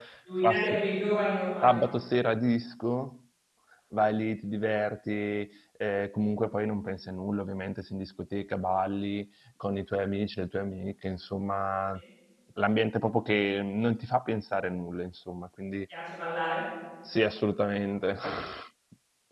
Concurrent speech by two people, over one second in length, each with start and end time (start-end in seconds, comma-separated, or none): none